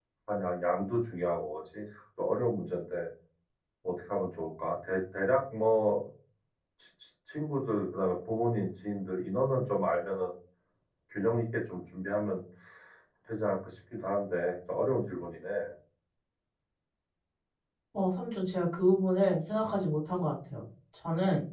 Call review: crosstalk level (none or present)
none